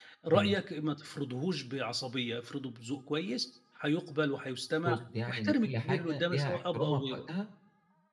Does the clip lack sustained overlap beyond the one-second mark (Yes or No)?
No